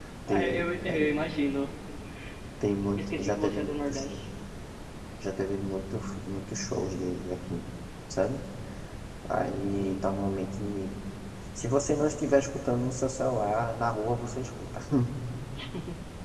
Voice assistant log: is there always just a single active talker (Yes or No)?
No